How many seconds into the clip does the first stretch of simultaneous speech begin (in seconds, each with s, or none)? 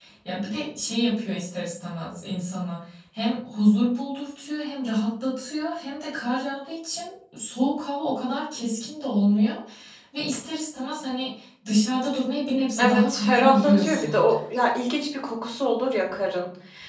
12.8 s